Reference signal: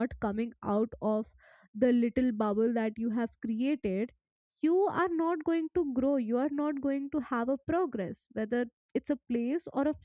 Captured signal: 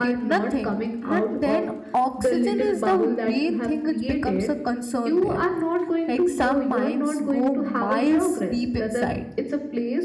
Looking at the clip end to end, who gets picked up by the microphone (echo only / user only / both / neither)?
both